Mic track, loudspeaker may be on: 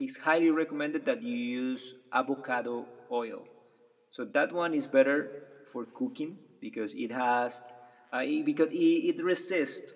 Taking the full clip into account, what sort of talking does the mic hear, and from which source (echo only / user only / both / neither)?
user only